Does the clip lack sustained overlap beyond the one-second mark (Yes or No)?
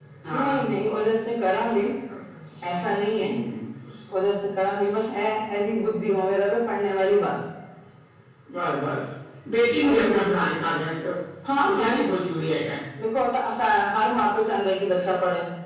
Yes